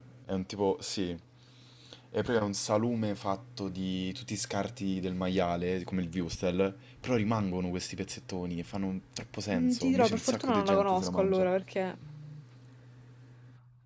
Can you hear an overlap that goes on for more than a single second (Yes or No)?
Yes